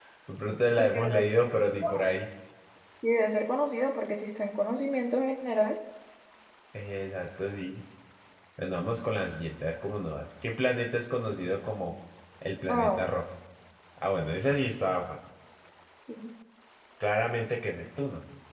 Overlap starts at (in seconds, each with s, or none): 0.8 s